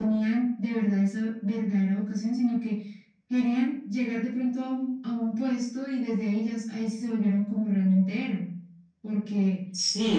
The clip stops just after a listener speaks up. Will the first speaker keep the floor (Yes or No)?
No